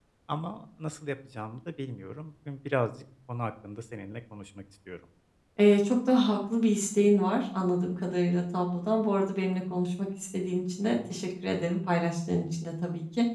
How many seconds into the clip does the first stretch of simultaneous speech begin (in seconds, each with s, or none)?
none